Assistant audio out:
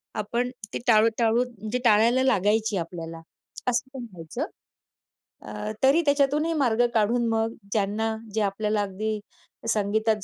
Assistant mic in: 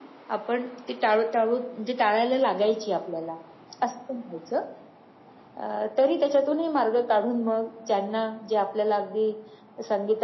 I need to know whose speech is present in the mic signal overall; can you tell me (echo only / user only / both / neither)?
echo only